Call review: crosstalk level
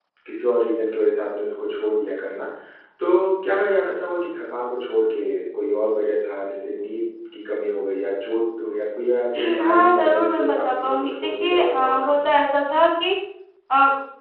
present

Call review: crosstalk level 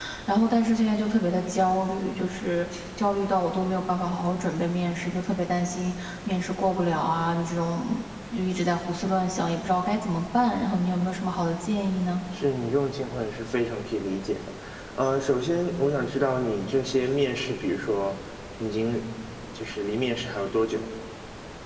none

